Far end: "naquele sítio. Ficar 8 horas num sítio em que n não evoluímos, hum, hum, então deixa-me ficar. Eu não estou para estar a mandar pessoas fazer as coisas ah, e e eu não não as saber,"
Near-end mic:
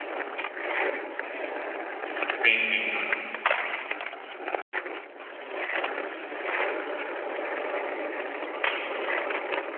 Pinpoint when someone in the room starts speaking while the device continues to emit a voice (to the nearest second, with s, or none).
2 s